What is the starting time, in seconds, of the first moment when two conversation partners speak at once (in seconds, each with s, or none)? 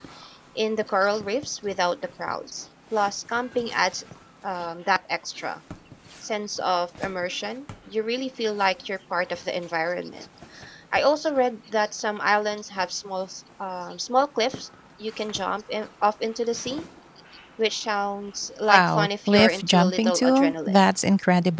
18.7 s